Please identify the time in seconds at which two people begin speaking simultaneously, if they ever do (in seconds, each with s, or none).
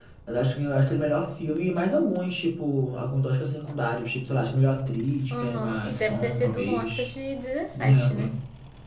5.3 s